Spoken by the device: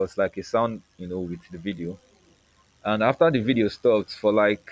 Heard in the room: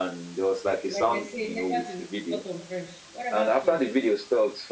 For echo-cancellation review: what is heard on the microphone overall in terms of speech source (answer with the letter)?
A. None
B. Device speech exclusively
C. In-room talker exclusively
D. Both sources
D